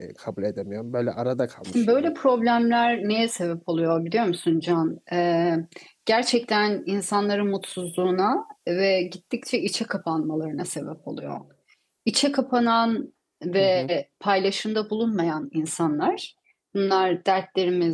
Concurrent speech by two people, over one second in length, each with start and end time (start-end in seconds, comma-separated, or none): none